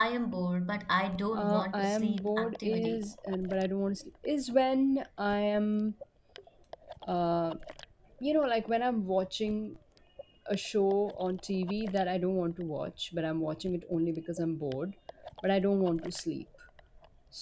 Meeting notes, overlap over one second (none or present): present